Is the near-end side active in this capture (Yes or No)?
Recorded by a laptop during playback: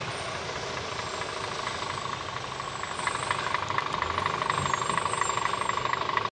No